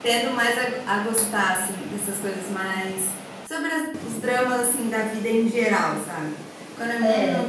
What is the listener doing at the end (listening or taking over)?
listening